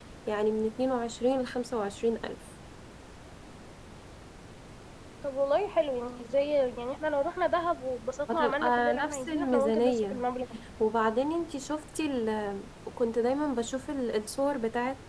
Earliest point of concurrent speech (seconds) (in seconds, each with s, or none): 8.3 s